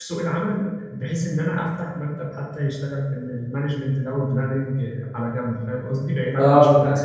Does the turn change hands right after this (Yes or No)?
Yes